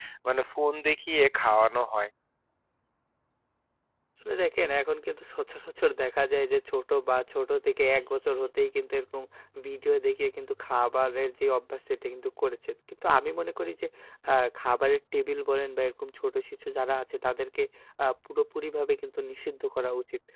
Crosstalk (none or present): none